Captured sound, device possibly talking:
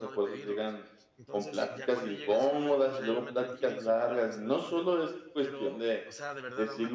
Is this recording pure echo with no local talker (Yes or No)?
No